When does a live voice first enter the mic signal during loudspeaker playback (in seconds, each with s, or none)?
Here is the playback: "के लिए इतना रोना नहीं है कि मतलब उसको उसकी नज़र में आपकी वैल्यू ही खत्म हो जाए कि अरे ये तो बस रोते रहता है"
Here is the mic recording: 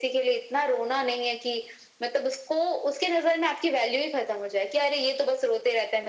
none